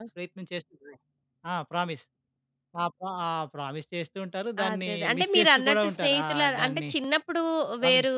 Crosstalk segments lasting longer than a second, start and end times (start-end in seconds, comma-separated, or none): 4.7-6.9